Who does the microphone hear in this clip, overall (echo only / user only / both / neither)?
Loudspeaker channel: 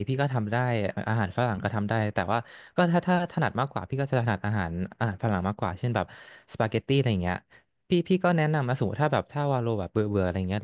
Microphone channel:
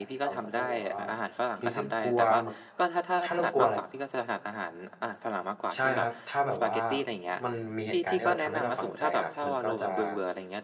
both